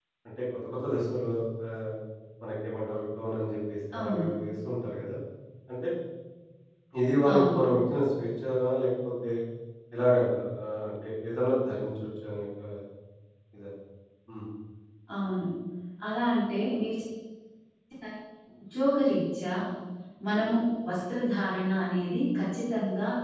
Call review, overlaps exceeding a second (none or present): none